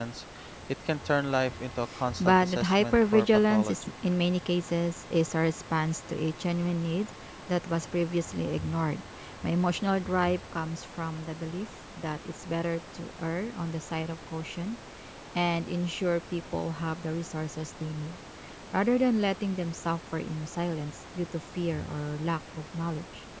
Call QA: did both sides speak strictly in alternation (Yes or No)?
No